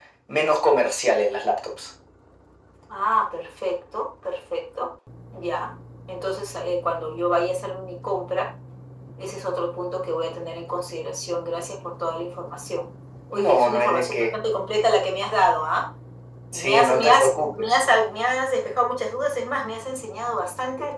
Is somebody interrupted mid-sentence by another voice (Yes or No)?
Yes